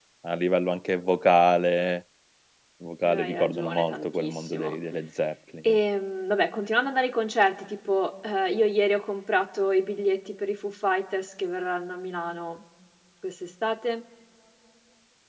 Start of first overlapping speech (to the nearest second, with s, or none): 3 s